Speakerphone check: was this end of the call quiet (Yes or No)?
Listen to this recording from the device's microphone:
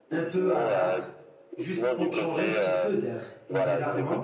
No